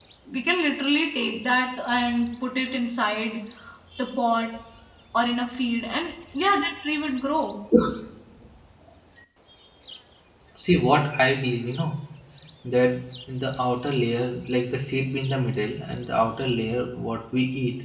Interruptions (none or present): none